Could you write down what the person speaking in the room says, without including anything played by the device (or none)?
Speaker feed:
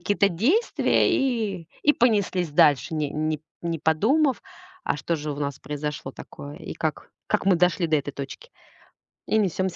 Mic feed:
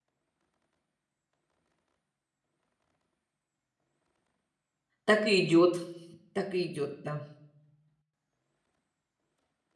так и идет, Так и идет, да.